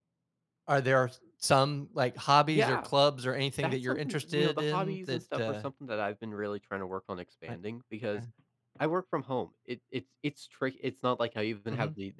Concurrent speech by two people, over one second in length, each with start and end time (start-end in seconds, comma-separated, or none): 3.6-5.5